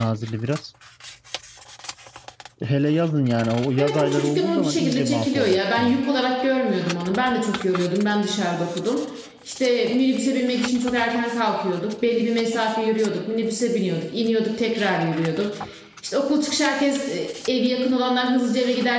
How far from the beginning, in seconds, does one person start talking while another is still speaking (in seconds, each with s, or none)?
3.8 s